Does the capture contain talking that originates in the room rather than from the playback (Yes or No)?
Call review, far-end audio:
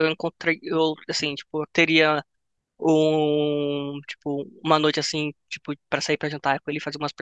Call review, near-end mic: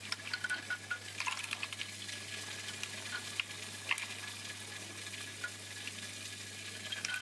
No